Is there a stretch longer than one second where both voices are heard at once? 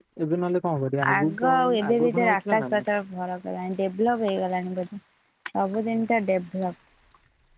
Yes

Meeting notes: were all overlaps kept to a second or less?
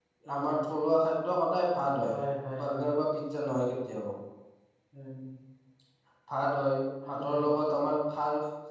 Yes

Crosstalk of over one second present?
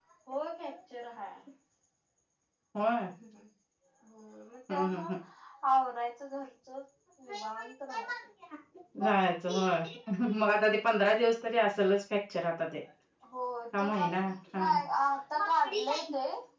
No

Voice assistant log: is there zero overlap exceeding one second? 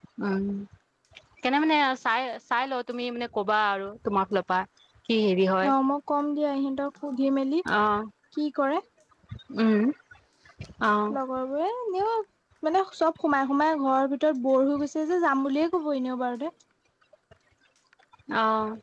Yes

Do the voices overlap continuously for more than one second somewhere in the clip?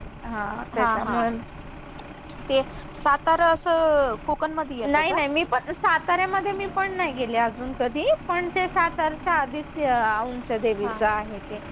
No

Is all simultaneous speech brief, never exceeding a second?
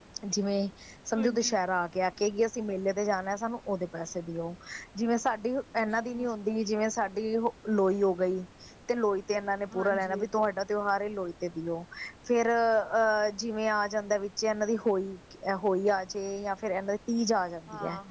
Yes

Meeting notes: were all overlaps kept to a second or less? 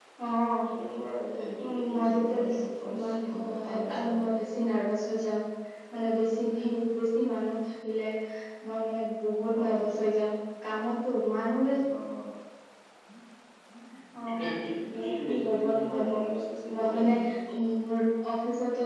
No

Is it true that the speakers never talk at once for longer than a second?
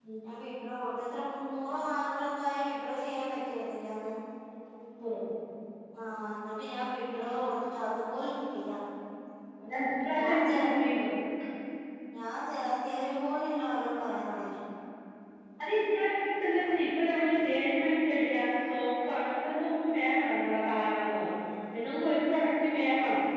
Yes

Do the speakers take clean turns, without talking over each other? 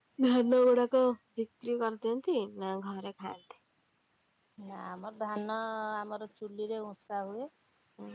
Yes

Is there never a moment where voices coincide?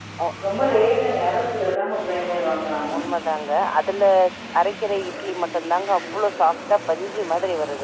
Yes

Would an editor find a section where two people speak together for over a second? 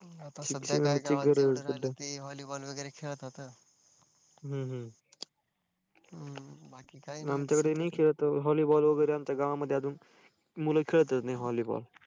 Yes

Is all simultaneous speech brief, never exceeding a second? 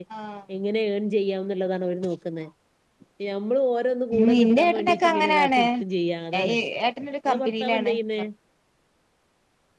No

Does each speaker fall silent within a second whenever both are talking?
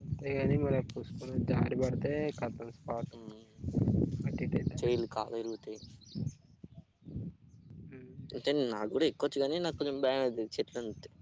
Yes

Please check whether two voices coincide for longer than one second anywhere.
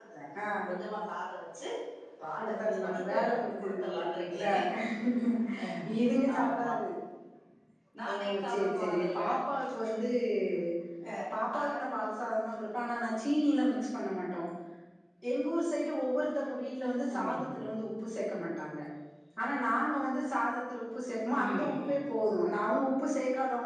Yes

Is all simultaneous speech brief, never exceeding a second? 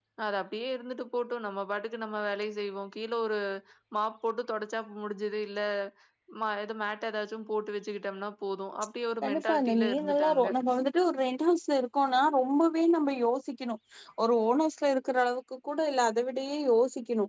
No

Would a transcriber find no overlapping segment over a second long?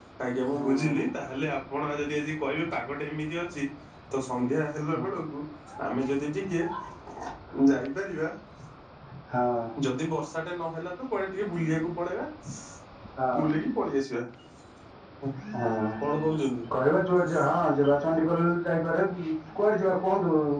Yes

